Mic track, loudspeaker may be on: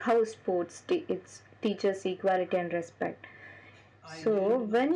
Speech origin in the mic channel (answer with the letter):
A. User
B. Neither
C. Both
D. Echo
C